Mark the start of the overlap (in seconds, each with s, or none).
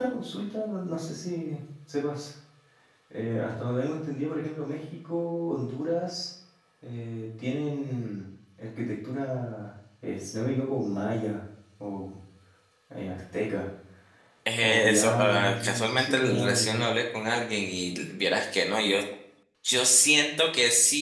14.6 s